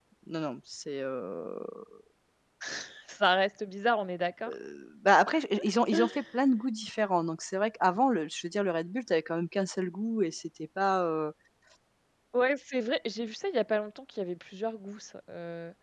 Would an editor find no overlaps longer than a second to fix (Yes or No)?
Yes